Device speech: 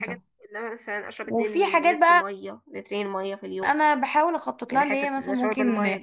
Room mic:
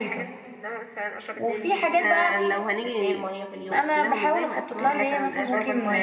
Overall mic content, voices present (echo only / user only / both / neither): both